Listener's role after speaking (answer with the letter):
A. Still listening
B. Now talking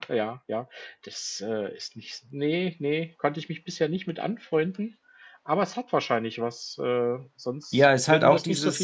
B